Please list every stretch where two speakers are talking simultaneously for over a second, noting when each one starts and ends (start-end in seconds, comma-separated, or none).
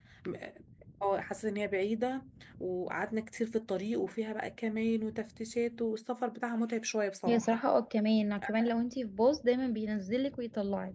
none